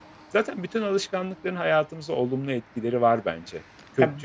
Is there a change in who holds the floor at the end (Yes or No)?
Yes